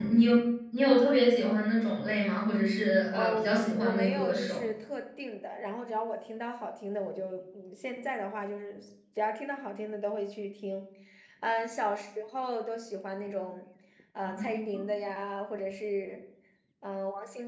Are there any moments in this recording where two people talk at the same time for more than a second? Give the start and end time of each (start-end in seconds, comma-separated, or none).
3.1-4.7